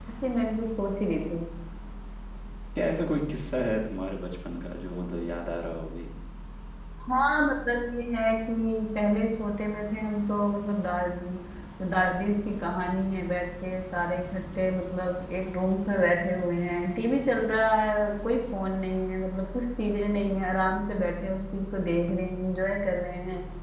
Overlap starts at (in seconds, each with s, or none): none